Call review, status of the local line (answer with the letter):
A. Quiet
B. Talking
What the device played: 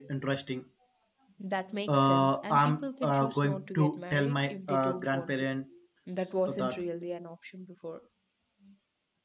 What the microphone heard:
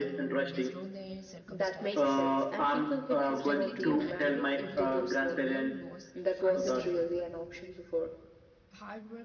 B